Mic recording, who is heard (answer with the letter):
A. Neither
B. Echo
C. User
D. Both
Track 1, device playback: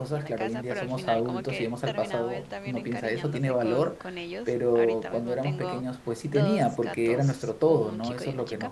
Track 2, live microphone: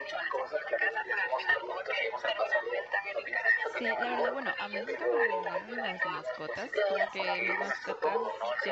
D